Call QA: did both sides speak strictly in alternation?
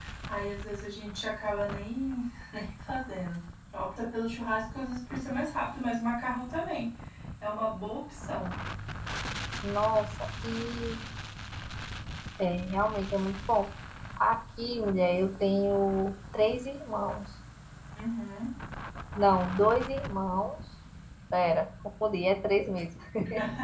Yes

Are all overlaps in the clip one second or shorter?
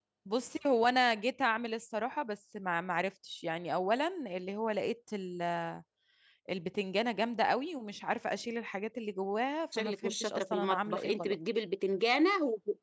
No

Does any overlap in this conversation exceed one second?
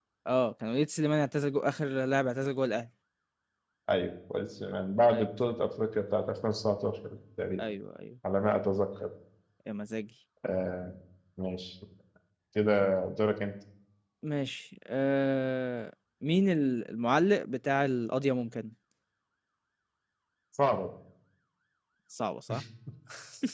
No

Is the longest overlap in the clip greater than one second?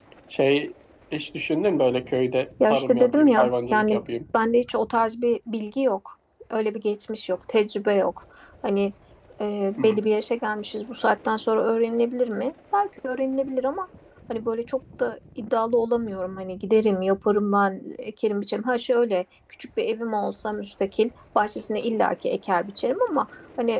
Yes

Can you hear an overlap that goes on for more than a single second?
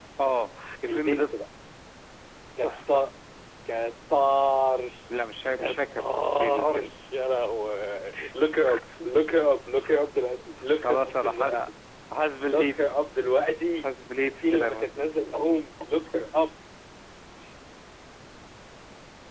Yes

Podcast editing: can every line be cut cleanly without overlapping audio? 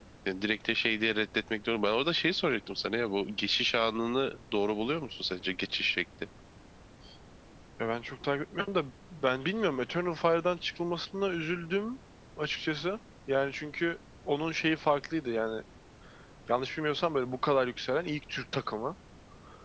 Yes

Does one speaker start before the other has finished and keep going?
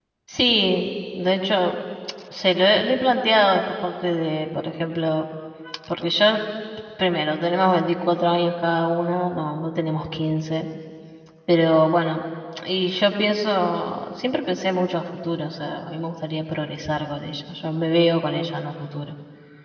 No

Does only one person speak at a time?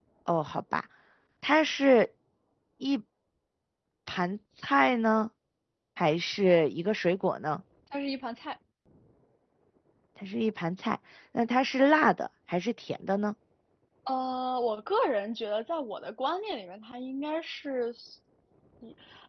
Yes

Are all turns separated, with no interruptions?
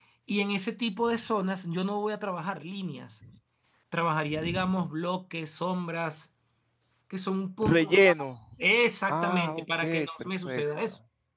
No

